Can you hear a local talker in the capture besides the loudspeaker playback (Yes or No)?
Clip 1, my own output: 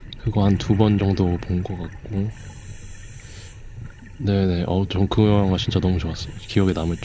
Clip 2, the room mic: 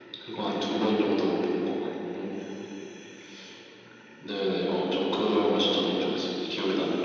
No